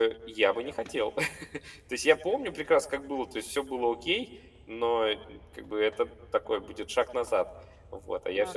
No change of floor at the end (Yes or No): No